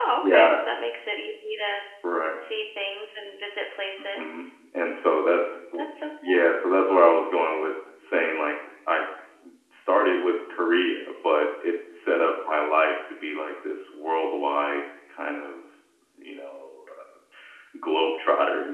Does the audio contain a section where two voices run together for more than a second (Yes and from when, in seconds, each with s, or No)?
No